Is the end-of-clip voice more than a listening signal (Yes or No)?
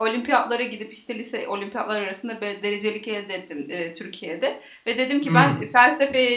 No